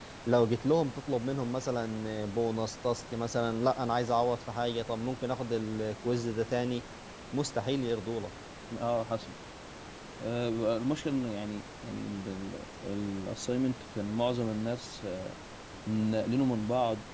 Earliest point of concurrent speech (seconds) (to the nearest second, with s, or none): none